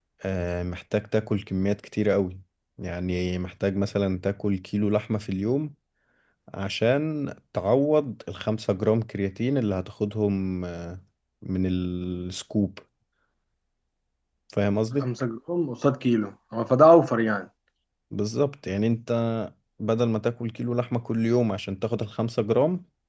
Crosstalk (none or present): none